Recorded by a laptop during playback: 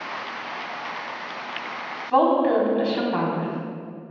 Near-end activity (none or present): present